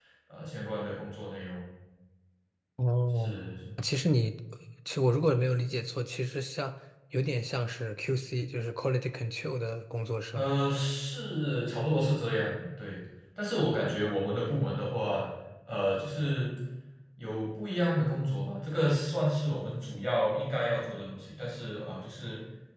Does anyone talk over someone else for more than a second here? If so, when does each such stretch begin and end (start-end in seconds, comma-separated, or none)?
none